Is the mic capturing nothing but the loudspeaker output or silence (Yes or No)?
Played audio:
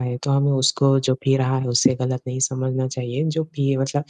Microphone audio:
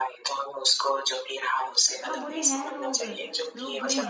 No